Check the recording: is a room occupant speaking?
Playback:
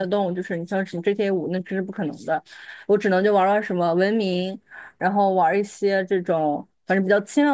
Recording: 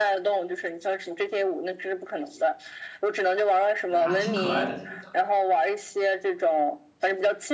Yes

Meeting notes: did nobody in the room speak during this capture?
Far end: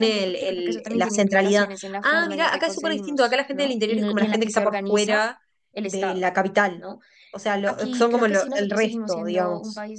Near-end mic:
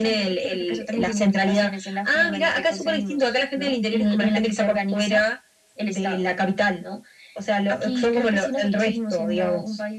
Yes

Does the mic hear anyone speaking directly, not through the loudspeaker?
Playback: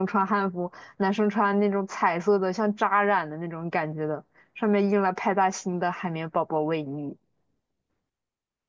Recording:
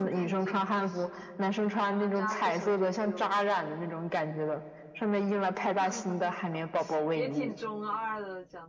Yes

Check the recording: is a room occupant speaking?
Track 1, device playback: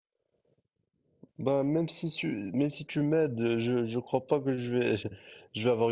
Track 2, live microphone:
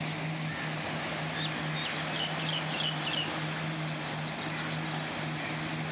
No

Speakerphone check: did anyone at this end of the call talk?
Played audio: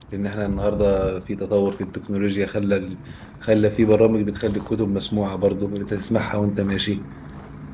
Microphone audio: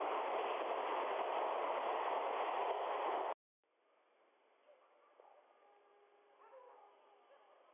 No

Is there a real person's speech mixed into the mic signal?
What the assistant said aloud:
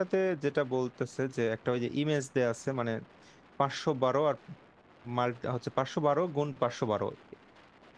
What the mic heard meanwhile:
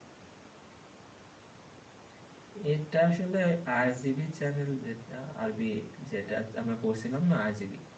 Yes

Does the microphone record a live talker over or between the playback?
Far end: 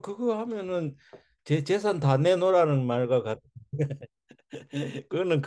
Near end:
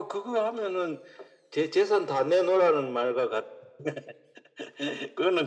No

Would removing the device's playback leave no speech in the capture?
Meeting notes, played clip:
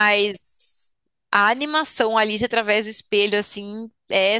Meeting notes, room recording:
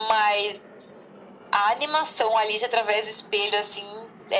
Yes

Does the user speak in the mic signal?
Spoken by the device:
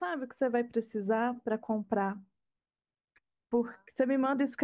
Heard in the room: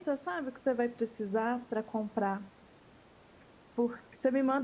No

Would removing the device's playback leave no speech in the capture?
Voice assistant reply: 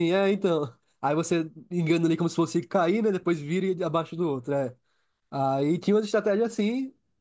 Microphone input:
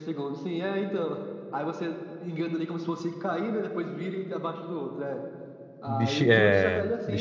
No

